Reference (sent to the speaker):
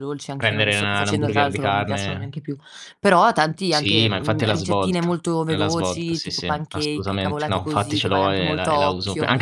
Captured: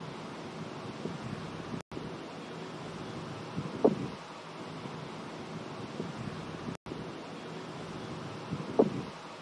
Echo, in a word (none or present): none